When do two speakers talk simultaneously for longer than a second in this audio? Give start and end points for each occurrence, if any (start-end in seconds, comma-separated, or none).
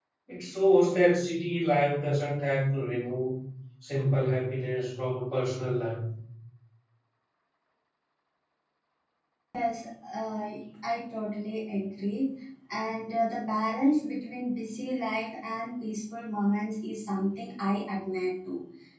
none